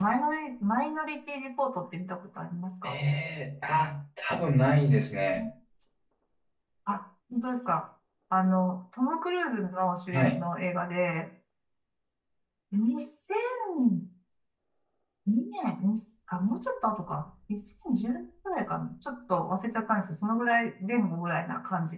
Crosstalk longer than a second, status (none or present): none